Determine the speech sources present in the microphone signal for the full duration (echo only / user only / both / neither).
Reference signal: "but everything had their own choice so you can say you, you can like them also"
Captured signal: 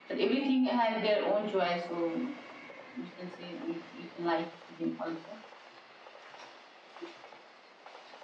echo only